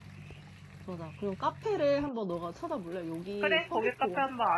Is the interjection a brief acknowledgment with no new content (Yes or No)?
No